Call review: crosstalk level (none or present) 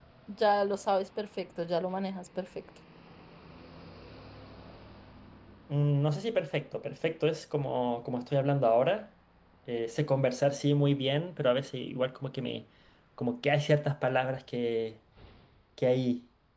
none